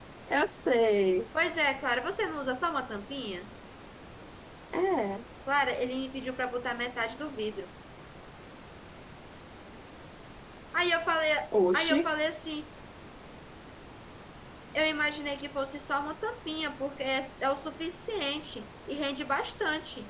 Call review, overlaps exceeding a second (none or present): none